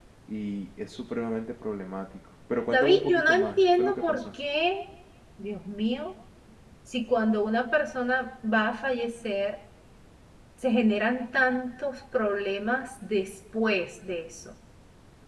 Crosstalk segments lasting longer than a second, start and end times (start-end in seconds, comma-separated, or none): 2.7-4.2